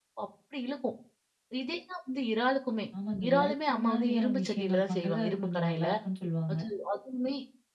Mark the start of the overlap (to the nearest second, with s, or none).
3 s